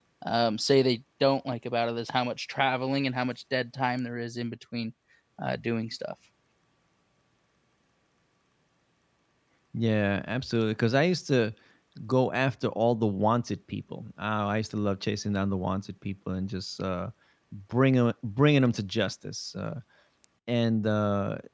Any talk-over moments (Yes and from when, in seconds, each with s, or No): No